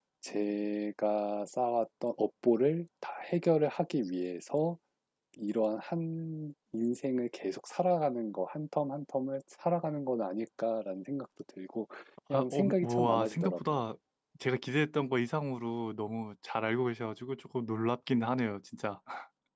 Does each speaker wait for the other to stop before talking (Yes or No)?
No